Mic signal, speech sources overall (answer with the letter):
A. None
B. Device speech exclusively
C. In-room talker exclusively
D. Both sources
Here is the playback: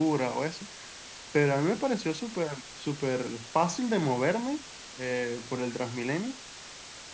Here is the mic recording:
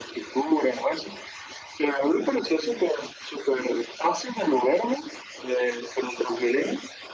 B